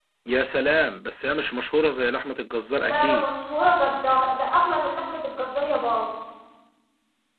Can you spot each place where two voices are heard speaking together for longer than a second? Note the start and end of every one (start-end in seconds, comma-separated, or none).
none